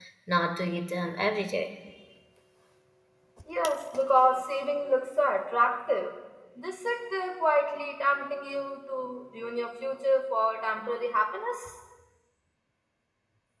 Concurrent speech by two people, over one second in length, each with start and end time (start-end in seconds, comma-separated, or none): none